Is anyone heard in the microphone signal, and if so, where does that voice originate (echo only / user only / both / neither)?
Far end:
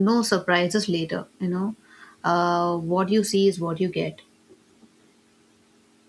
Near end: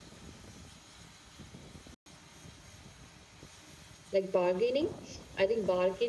user only